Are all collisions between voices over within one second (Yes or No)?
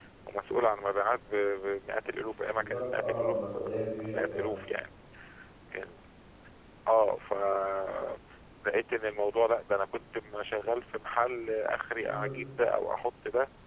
No